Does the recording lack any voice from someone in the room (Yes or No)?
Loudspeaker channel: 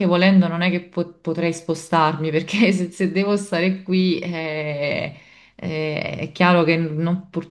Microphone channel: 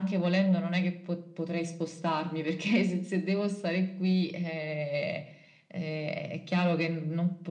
Yes